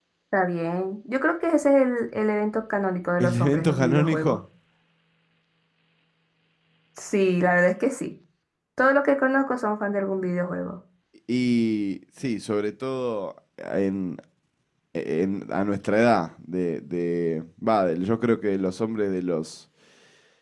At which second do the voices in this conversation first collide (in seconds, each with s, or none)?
3.2 s